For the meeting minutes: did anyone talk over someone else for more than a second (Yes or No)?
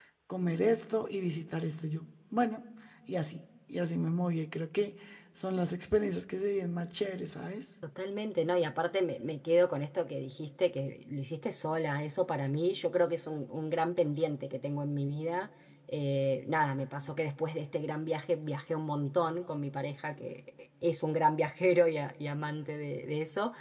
No